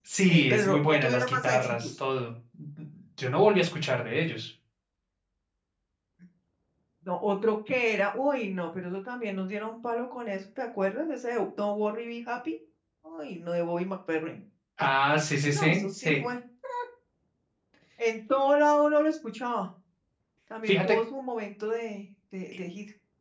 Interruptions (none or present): present